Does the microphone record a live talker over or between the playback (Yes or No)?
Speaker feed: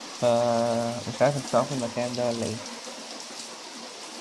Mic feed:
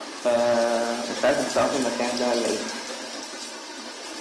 No